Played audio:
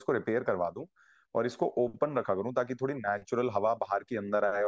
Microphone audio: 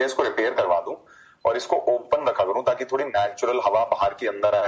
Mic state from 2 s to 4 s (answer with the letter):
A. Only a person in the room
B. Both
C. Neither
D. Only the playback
D